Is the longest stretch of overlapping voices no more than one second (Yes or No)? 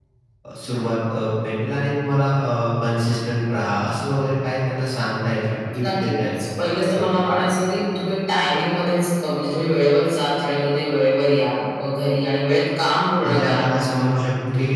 Yes